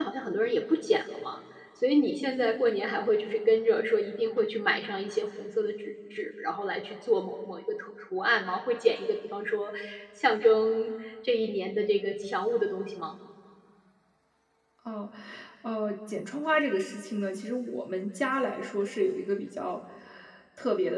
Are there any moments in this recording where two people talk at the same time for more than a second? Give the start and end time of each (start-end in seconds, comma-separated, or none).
none